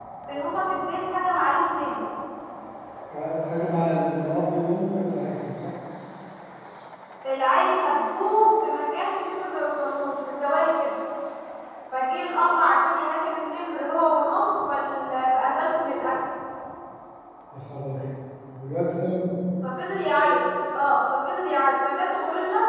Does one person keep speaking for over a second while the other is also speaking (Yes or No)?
No